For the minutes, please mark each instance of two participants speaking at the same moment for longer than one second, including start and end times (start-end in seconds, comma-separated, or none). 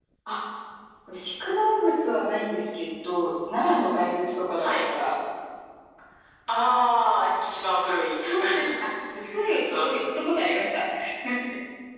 none